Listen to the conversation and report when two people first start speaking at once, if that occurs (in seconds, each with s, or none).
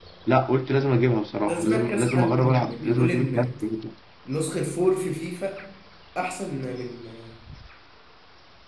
1.5 s